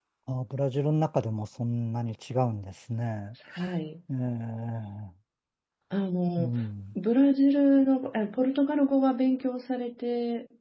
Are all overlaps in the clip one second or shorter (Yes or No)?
Yes